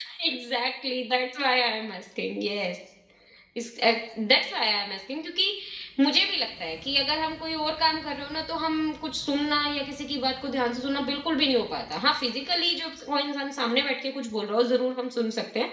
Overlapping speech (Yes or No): No